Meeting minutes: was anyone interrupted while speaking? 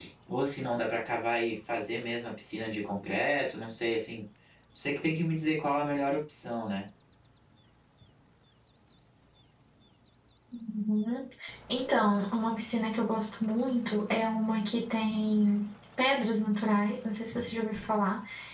No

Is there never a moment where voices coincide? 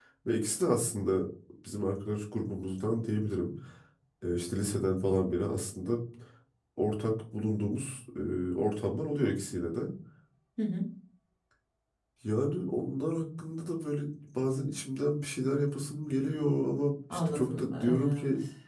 No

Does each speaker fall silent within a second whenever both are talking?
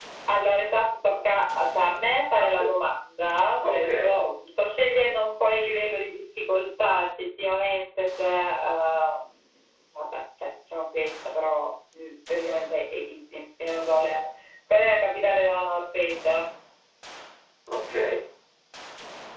Yes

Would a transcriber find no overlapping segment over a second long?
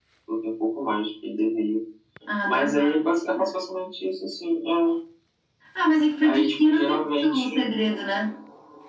No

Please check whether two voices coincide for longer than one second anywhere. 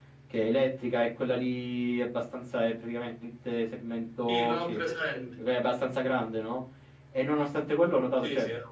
No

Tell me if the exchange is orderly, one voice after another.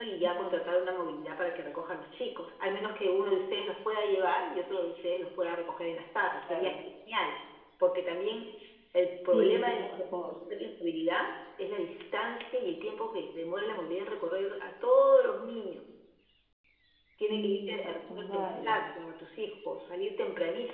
No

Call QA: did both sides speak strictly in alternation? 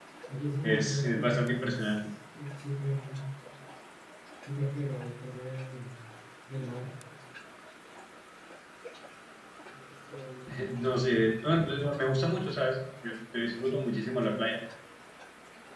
No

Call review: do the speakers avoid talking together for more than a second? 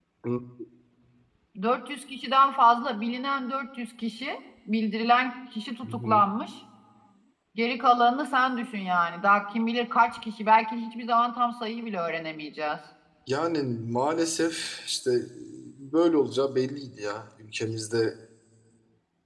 Yes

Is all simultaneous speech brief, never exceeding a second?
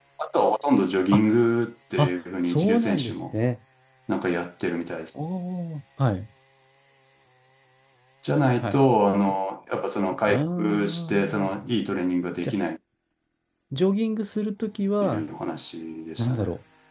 No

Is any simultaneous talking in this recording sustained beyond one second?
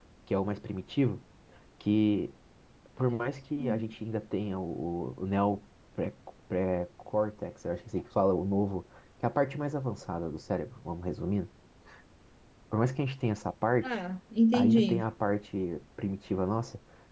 No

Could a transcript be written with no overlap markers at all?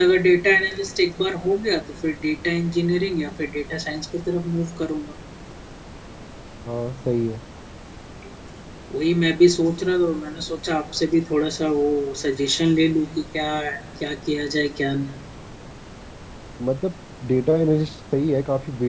Yes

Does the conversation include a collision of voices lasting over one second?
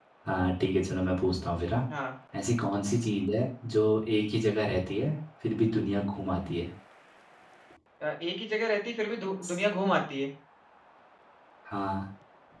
No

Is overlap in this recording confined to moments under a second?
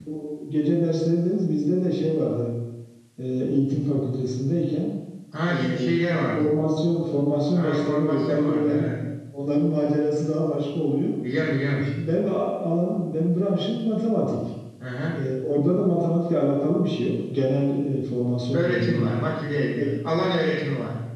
No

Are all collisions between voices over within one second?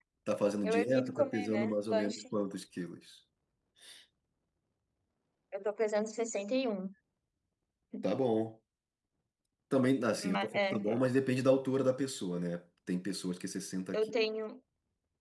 No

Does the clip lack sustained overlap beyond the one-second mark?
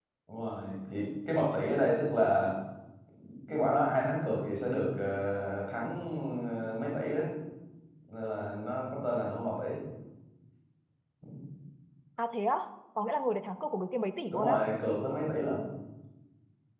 Yes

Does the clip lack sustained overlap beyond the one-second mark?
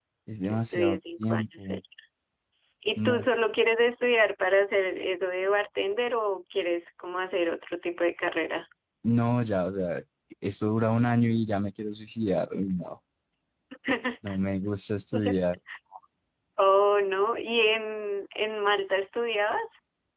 No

